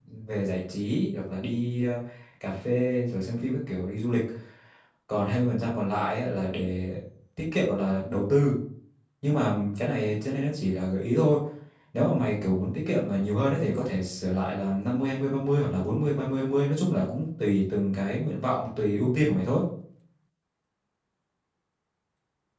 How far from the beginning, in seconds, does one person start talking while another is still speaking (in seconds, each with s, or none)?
none